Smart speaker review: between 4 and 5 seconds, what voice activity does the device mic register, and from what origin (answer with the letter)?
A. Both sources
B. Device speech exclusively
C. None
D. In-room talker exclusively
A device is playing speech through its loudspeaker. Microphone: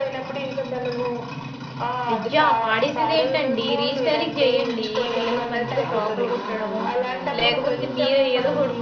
A